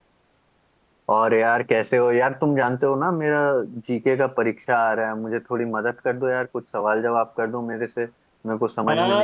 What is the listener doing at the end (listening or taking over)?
taking over